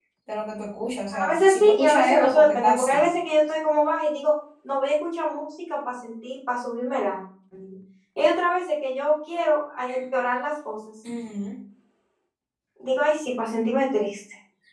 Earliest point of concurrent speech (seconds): 1.1 s

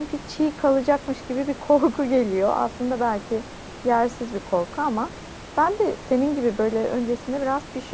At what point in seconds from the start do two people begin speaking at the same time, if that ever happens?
none

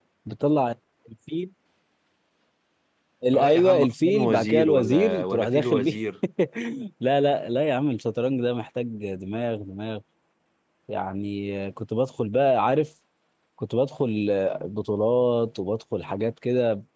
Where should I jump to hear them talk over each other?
3.3 s

